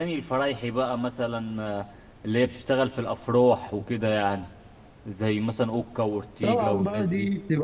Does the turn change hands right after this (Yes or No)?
Yes